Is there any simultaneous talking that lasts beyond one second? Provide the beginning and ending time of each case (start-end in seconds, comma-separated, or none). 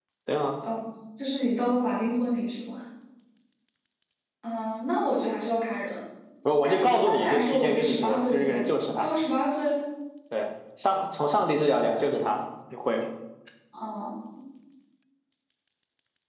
6.6-8.6